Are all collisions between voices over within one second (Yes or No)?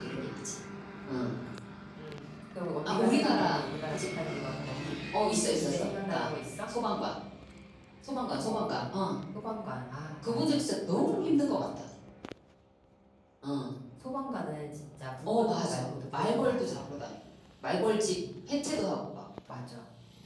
No